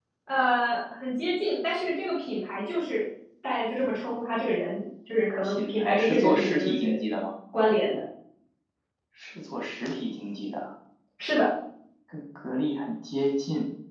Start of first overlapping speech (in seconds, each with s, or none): 5.4 s